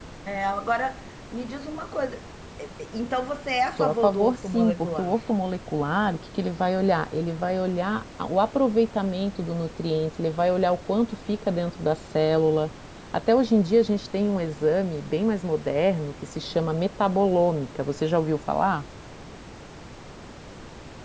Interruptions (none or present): present